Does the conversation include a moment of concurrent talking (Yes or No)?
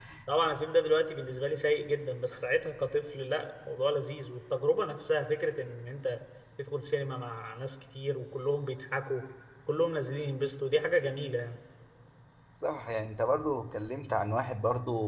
No